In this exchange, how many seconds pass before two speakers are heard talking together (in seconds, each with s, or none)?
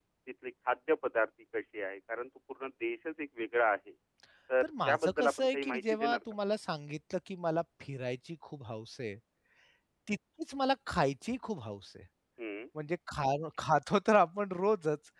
4.6 s